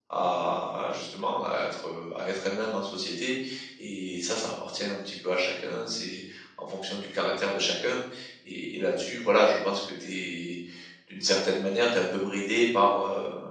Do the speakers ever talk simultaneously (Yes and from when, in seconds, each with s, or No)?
No